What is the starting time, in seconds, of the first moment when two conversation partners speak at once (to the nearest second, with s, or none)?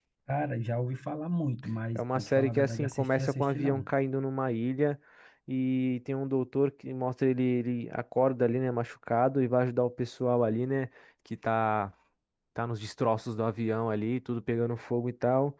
2 s